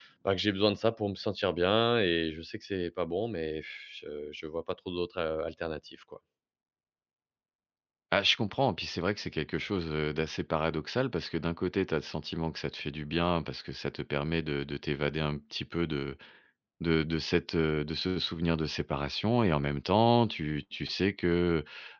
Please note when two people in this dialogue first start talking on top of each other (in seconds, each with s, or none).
none